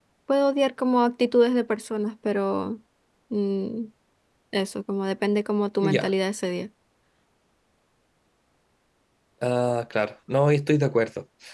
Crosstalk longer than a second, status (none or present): none